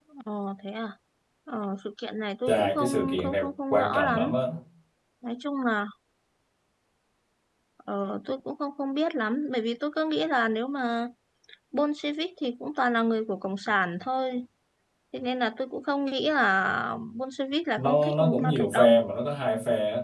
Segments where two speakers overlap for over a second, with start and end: 2.5-4.3, 17.8-19.0

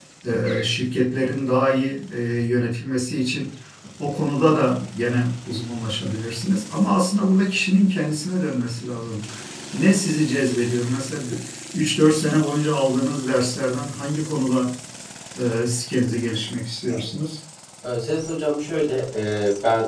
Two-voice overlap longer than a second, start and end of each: none

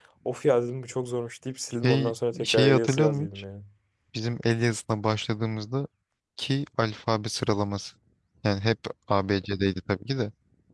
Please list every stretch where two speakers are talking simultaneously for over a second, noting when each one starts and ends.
1.8-3.3

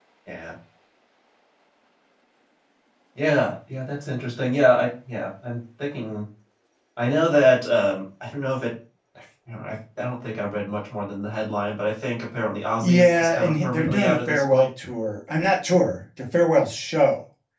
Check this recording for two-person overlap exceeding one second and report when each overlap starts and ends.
12.8-14.6

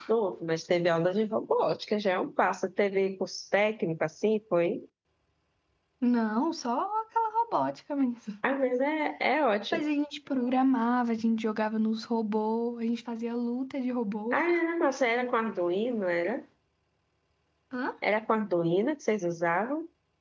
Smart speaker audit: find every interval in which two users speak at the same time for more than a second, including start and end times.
none

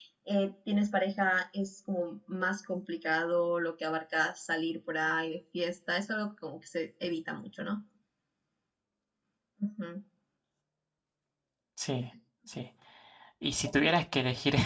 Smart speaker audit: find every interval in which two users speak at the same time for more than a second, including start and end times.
none

